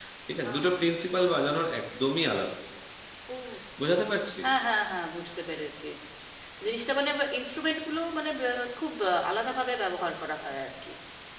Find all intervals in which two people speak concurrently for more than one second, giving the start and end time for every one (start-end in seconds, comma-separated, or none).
none